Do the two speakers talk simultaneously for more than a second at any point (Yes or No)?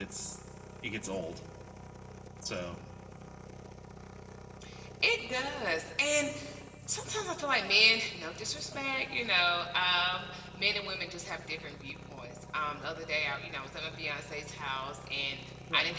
No